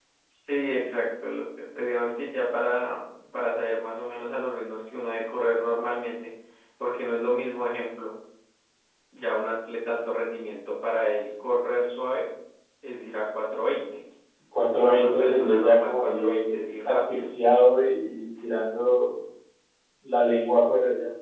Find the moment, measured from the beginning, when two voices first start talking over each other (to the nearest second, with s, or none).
15 s